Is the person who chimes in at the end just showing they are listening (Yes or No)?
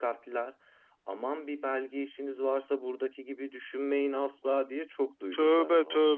No